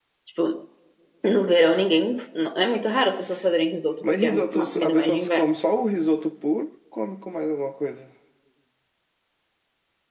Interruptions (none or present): present